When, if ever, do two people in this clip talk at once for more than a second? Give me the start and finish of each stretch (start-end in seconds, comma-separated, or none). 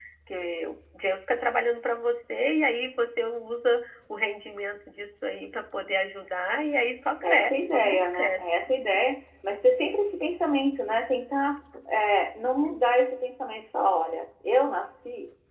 7.2-8.6